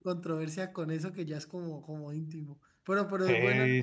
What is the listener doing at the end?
taking over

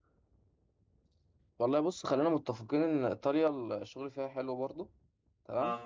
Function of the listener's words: listening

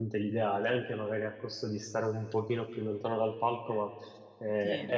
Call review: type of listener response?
listening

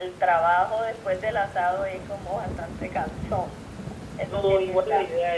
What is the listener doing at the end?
taking over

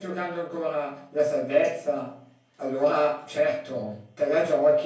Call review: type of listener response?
listening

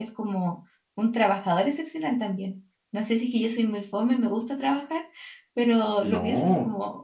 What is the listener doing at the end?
listening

